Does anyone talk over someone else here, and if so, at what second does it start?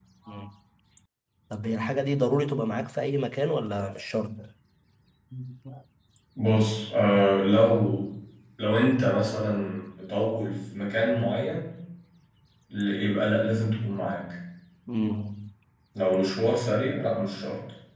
none

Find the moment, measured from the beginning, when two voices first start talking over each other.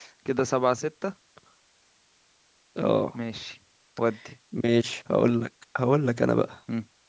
none

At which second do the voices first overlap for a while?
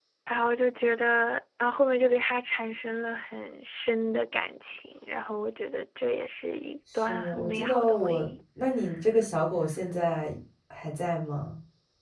6.9 s

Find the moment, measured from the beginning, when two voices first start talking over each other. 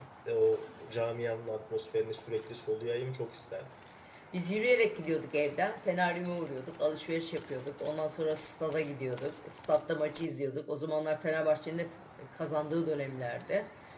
none

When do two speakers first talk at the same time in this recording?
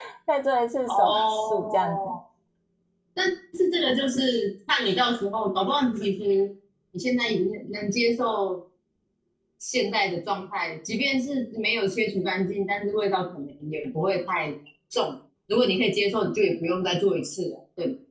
0.9 s

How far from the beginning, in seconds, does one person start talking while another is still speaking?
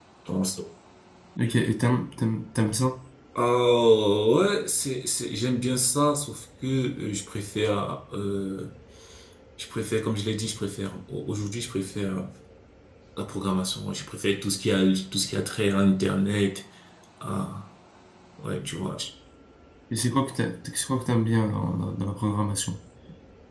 none

